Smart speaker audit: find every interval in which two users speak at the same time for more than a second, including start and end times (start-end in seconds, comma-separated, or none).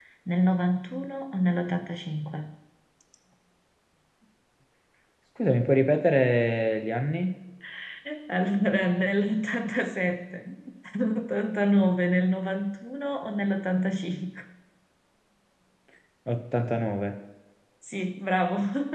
none